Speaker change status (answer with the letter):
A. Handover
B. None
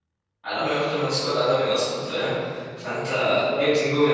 B